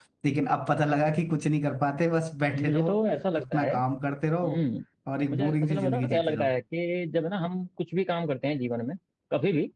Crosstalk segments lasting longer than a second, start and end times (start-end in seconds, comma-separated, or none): 5.3-6.5